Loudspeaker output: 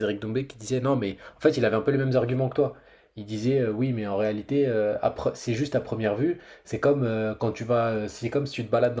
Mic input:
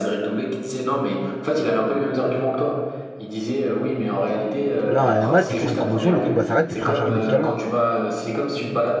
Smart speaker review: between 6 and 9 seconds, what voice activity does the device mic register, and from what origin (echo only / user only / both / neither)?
both